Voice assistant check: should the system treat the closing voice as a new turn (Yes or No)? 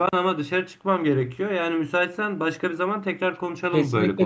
Yes